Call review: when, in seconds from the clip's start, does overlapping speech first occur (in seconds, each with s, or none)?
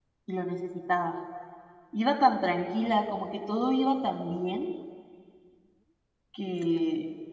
none